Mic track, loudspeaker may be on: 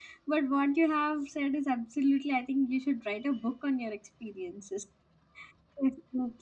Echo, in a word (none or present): none